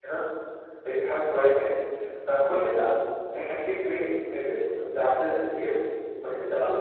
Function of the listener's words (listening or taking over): listening